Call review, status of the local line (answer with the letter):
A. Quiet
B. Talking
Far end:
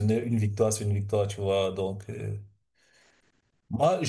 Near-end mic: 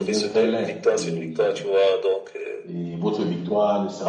B